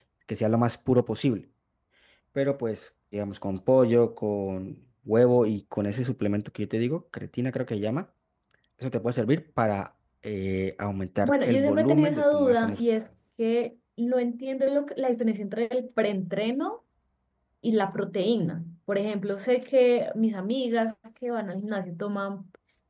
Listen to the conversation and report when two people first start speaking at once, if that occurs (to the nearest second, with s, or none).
11 s